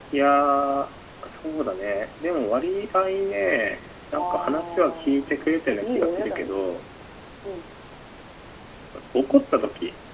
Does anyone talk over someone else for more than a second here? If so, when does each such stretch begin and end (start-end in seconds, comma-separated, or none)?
4.2-6.7